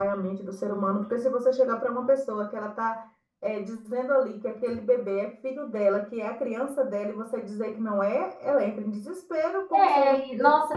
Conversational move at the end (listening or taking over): taking over